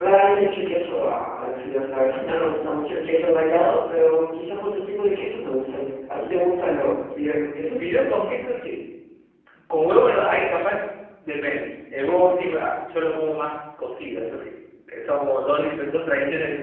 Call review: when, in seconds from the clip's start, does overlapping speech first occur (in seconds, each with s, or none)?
none